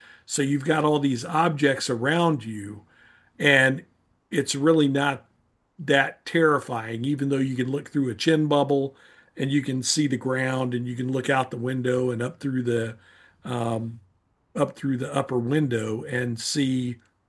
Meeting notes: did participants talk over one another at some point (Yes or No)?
No